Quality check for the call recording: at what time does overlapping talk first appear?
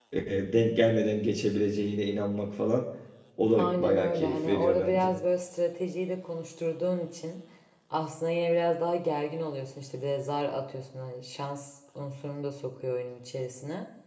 3.6 s

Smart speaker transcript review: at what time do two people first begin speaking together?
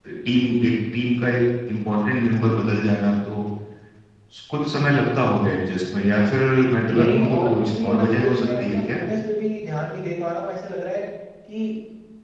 6.9 s

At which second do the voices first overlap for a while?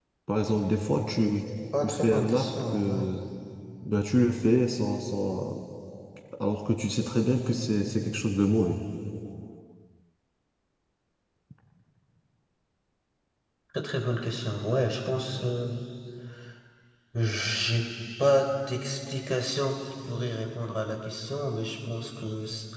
1.7 s

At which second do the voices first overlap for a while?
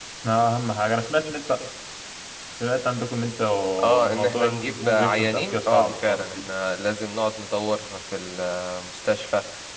4.0 s

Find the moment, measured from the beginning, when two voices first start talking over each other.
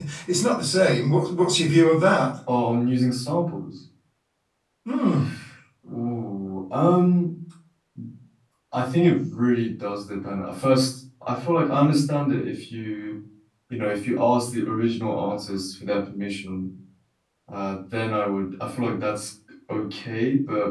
none

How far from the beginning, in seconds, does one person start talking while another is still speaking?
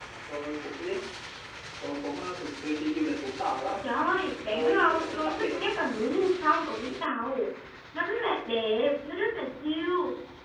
4.5 s

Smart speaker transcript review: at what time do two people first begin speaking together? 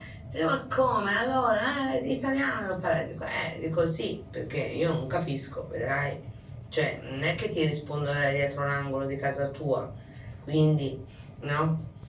none

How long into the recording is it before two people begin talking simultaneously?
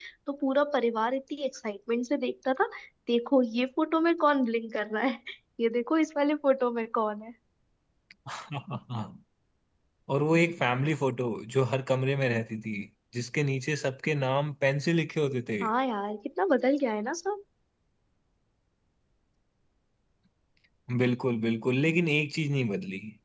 none

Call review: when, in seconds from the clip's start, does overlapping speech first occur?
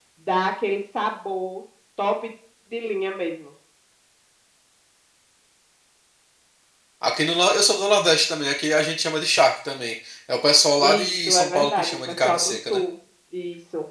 10.8 s

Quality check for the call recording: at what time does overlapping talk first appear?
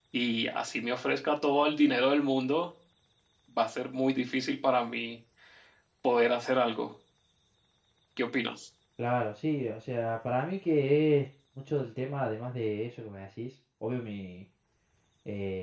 none

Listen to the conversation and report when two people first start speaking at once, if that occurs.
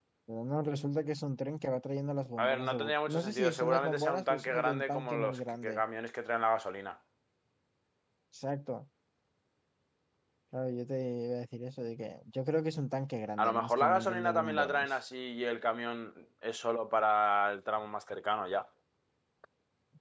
2.4 s

